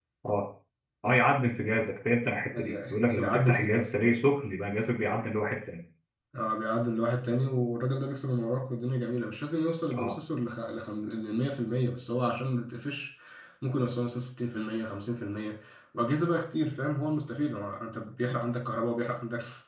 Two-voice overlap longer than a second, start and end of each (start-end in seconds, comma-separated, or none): 2.6-3.9